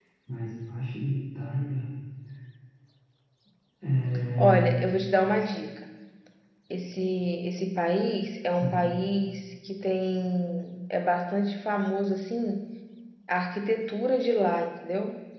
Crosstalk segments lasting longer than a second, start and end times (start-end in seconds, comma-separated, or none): none